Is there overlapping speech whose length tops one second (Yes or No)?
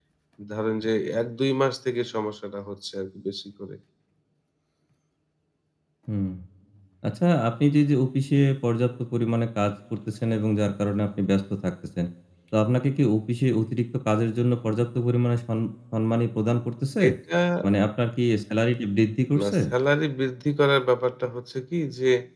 No